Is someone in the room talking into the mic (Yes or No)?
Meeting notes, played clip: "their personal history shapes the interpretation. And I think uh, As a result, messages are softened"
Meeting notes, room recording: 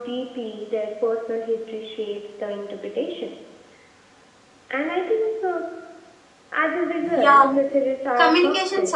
Yes